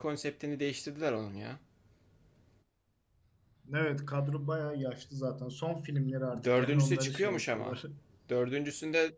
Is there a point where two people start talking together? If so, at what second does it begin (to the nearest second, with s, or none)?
6 s